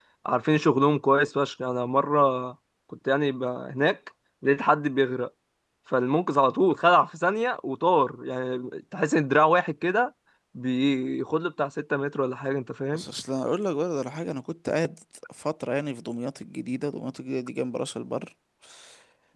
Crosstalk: none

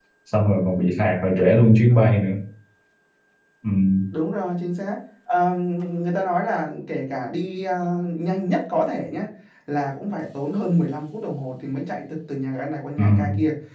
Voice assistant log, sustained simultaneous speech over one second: none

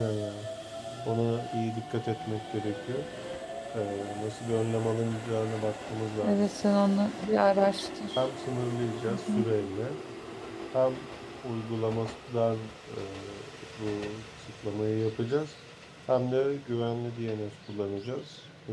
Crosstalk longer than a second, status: none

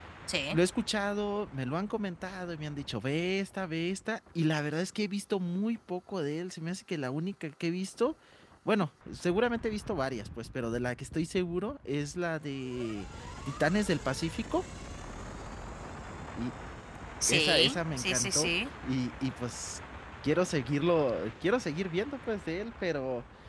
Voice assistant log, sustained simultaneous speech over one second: present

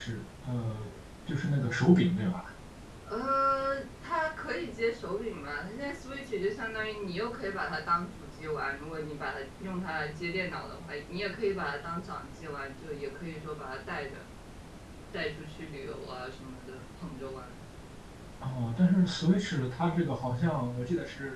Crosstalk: none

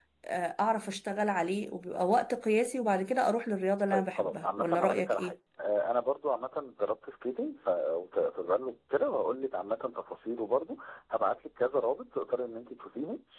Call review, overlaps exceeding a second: present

